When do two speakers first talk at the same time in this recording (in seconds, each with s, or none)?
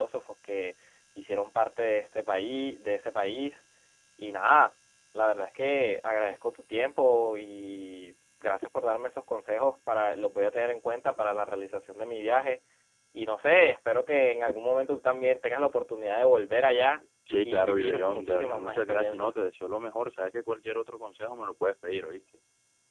17.3 s